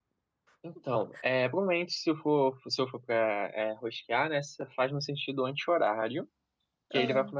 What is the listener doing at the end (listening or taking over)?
listening